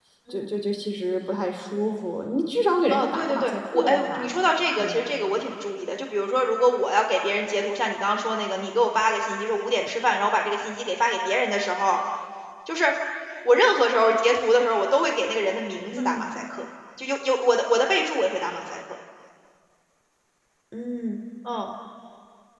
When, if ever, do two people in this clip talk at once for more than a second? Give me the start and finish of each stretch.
2.9-4.3

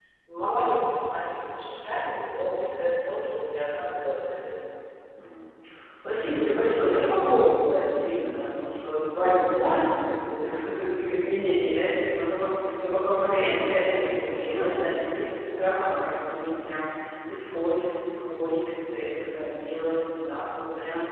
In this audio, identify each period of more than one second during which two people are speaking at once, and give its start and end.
none

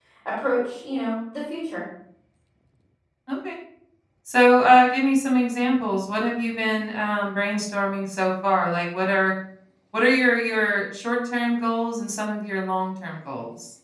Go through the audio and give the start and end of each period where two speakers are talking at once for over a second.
none

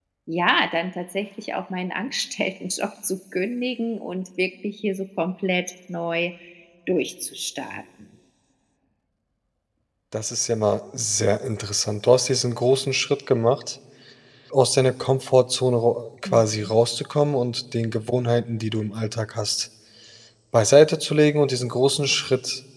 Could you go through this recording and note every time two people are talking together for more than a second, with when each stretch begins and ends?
none

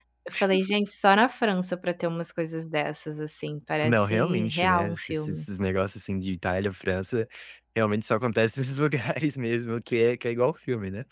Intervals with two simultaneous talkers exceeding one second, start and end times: 3.8-5.4

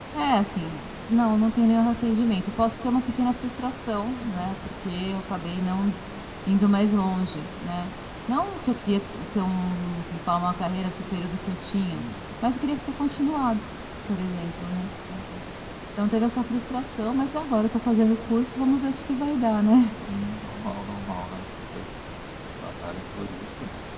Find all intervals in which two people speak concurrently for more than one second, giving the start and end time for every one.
none

